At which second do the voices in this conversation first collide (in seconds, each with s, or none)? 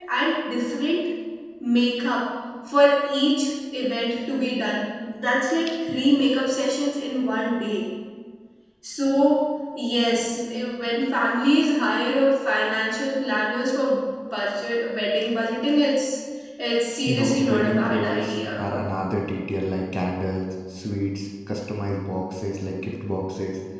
17.0 s